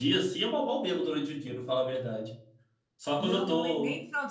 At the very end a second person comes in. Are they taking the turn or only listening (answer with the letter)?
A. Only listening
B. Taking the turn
B